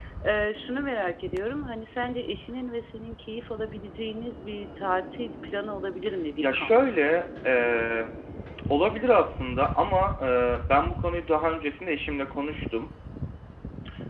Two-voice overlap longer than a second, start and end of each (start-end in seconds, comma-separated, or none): none